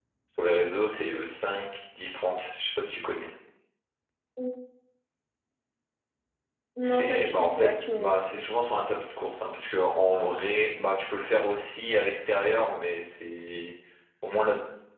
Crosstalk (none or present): present